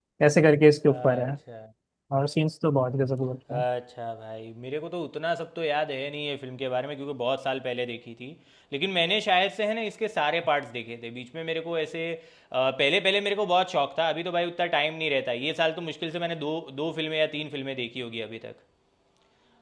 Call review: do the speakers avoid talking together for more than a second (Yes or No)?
Yes